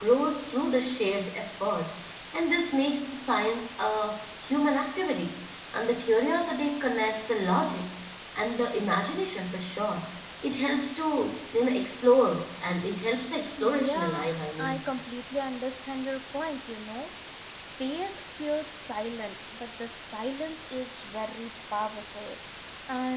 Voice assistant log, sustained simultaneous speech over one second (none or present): present